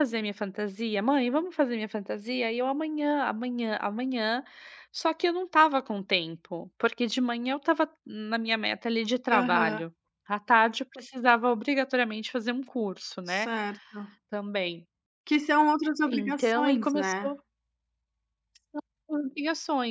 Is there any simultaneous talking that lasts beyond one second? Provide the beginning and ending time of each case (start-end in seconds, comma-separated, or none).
16.1-17.3